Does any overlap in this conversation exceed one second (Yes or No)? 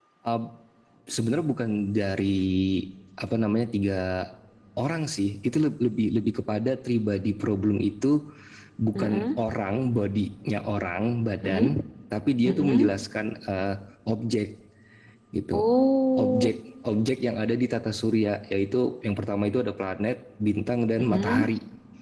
No